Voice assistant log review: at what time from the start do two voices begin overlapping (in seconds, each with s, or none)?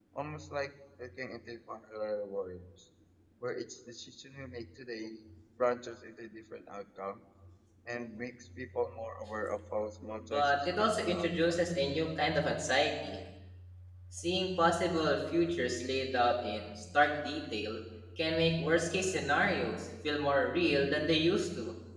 10.3 s